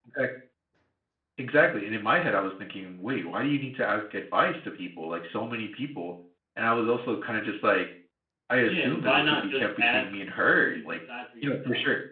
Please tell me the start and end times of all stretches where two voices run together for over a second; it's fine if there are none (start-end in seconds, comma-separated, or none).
8.7-10.1